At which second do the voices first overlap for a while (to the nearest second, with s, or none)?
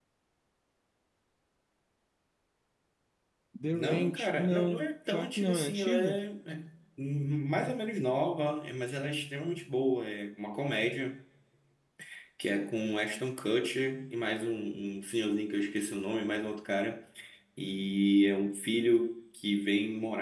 4 s